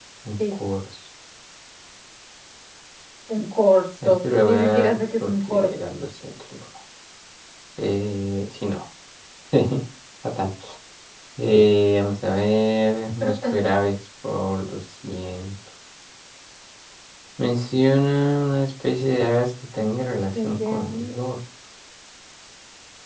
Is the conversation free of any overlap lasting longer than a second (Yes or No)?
No